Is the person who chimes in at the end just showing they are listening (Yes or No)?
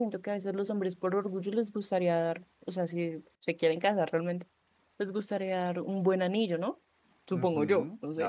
No